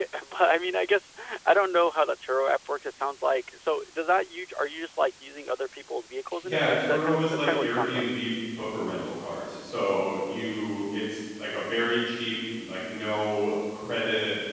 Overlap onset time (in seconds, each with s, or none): 6.4 s